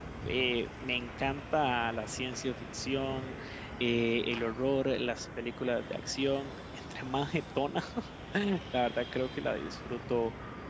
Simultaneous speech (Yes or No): No